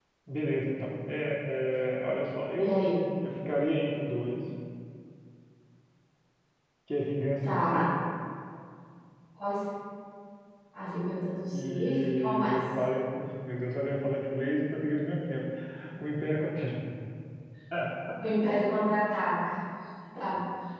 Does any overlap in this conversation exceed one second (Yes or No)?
Yes